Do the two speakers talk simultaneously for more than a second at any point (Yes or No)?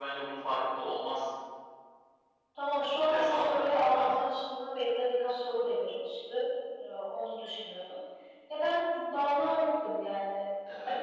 Yes